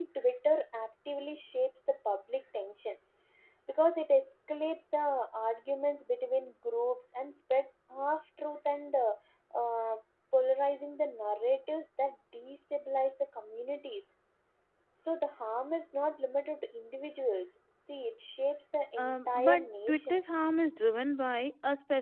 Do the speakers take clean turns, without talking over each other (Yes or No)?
No